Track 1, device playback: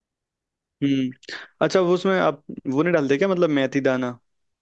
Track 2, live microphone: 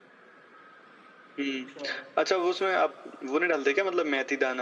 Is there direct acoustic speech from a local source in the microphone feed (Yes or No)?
Yes